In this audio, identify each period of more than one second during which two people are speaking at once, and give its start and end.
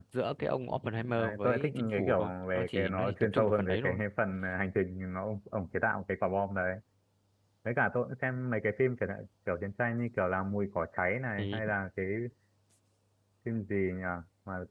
1.2-4.0

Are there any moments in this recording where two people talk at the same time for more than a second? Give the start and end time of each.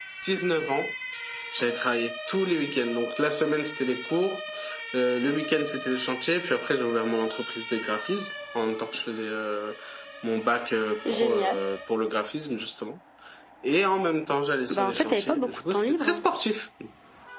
14.7-16.2

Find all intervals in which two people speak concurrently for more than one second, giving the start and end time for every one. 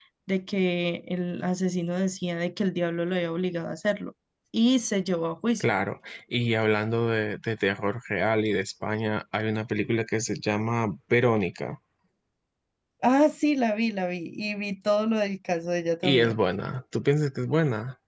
none

